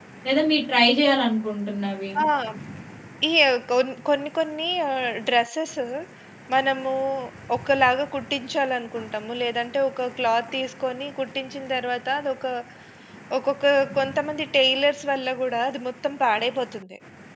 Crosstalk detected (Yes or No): No